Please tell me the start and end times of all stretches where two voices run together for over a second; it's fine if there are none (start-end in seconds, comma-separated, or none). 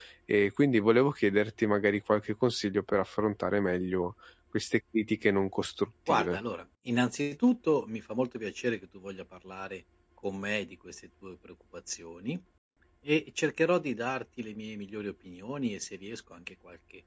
none